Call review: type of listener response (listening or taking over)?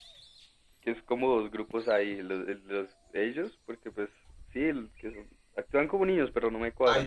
taking over